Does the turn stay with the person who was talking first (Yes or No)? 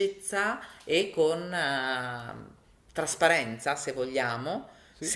Yes